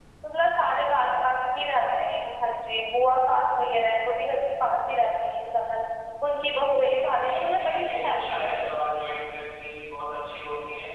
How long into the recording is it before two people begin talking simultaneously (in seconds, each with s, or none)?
7.1 s